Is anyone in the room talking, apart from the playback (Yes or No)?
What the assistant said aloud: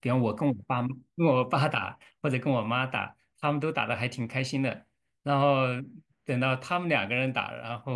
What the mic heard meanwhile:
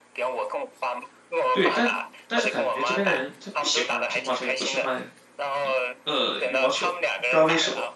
Yes